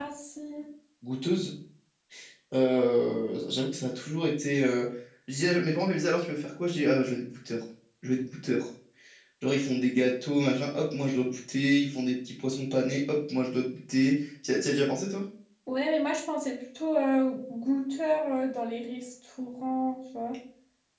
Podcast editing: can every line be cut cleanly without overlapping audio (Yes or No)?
Yes